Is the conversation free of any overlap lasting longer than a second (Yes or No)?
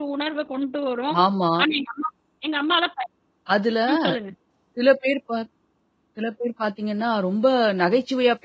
Yes